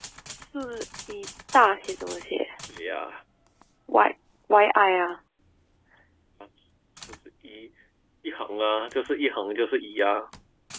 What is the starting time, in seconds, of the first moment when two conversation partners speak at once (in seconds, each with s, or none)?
none